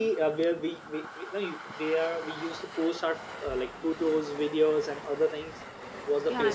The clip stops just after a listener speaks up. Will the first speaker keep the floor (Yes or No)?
No